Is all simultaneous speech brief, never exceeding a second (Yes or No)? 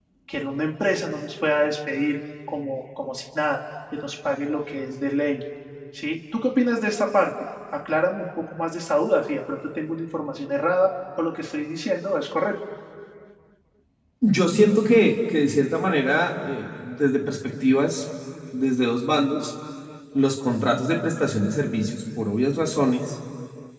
Yes